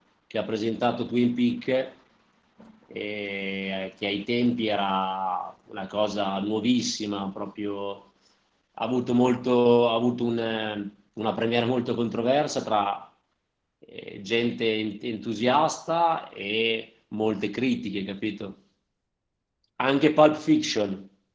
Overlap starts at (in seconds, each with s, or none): none